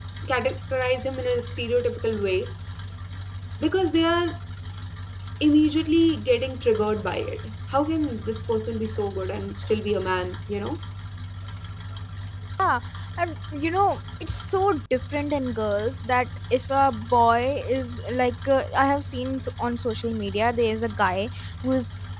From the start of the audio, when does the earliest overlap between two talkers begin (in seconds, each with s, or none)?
none